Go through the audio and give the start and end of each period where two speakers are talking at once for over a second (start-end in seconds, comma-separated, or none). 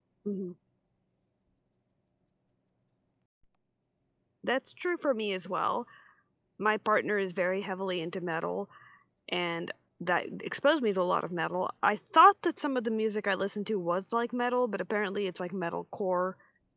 none